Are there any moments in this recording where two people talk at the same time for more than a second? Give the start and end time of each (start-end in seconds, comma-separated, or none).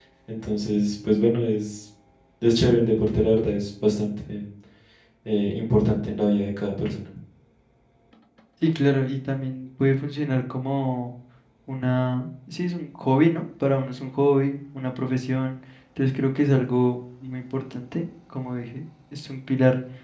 none